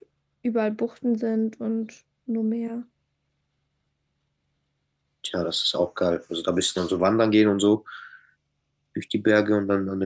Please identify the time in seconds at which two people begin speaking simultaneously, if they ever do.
none

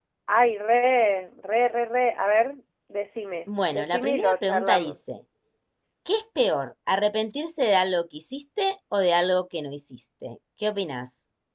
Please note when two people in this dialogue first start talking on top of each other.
3.5 s

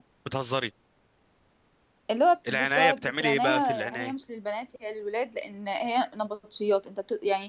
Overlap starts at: 2.5 s

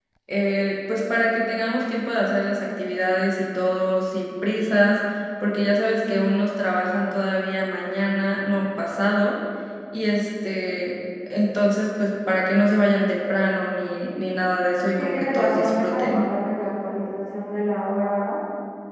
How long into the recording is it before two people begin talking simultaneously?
15.0 s

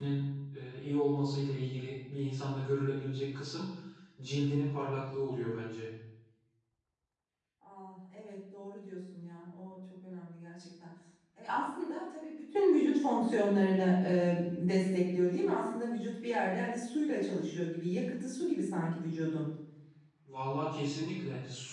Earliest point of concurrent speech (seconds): none

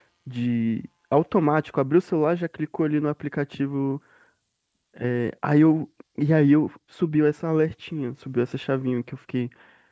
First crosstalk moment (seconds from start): none

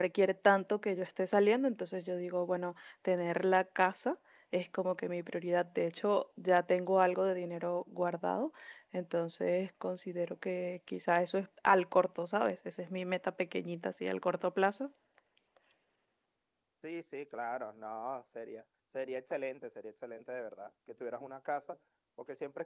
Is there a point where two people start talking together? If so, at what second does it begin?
none

